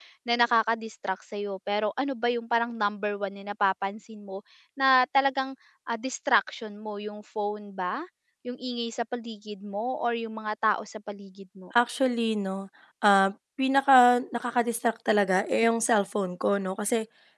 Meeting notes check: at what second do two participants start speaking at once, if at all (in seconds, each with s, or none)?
none